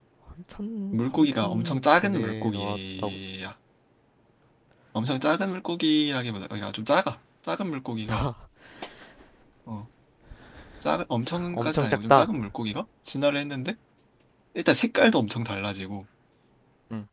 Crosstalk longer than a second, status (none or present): present